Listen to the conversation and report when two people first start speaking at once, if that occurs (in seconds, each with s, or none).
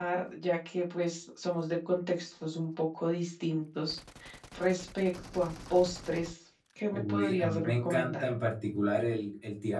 6.9 s